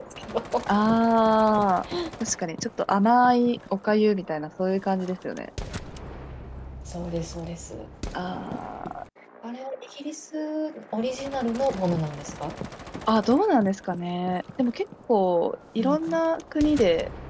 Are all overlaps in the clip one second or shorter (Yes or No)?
Yes